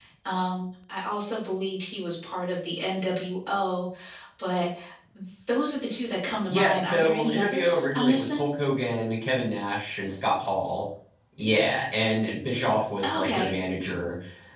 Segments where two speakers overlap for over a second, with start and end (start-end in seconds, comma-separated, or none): 6.5-8.4